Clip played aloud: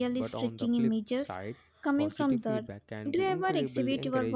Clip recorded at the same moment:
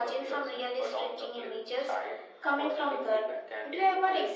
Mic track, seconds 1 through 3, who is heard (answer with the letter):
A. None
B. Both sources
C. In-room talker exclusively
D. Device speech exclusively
D